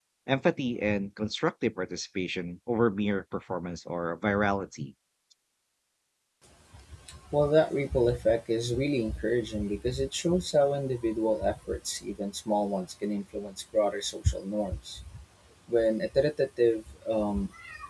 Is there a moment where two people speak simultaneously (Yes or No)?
No